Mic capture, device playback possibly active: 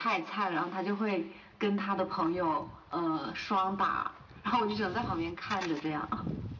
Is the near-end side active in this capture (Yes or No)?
No